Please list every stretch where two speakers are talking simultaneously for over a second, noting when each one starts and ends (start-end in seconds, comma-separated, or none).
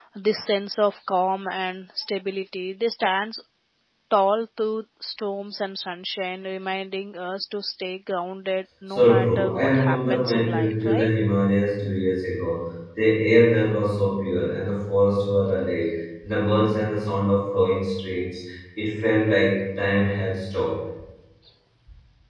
8.9-11.1